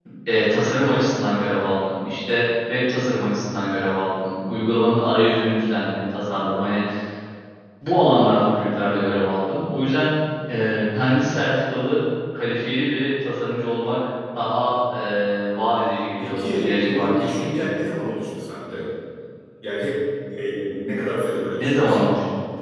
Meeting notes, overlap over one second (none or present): present